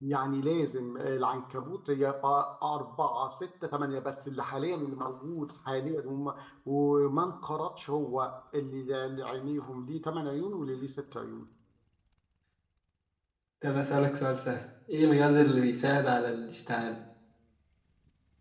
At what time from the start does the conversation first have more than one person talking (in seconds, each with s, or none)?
none